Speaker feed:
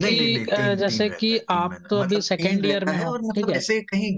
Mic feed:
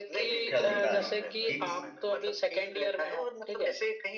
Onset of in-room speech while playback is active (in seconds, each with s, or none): 0.6 s